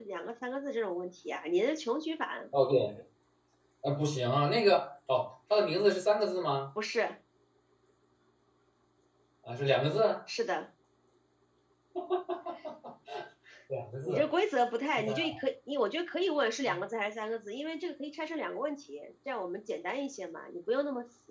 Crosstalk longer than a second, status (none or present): none